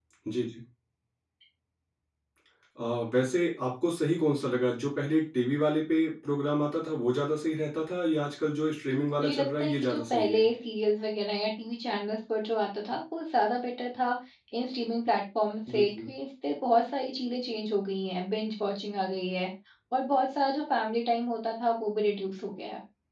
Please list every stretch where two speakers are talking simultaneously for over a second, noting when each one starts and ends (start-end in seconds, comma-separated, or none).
9.2-10.5